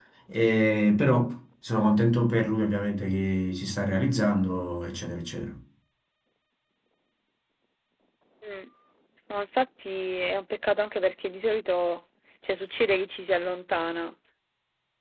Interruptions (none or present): none